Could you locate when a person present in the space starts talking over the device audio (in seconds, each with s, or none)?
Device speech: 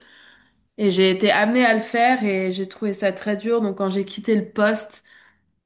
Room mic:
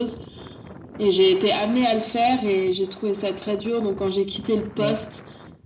4.8 s